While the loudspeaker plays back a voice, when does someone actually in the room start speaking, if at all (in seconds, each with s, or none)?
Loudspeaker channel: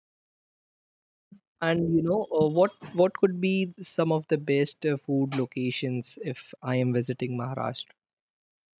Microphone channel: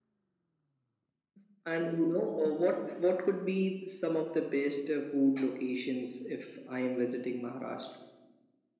none